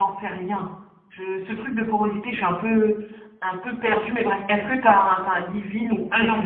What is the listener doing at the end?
taking over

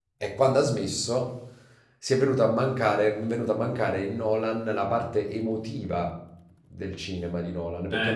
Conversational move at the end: taking over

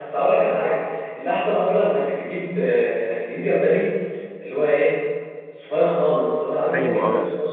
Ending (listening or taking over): taking over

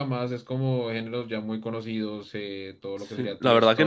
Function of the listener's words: taking over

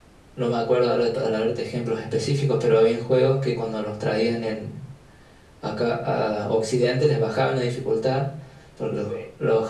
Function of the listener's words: listening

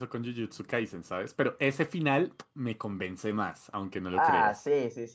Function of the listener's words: taking over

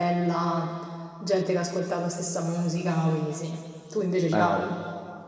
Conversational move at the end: taking over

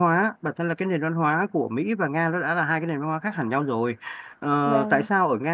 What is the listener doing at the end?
listening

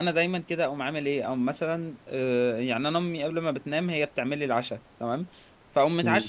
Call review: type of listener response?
listening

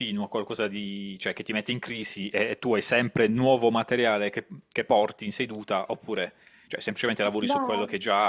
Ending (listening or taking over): taking over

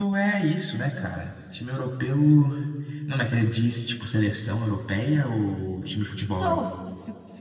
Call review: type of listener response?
taking over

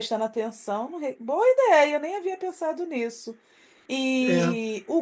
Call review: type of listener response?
listening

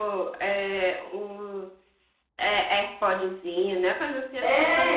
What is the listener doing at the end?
taking over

